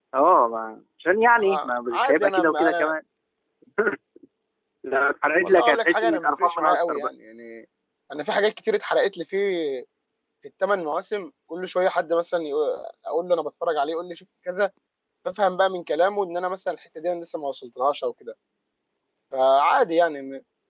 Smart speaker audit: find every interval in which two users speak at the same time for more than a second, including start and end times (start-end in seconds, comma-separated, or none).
1.4-2.9, 5.4-7.1